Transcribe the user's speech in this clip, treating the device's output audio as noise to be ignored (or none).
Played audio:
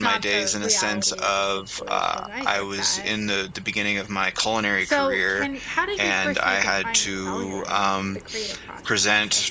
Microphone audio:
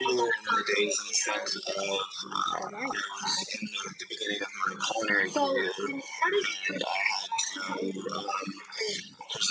none